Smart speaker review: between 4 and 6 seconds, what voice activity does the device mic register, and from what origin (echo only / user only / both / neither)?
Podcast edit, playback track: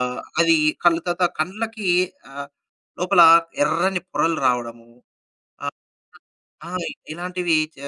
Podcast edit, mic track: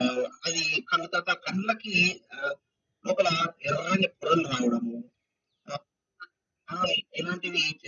echo only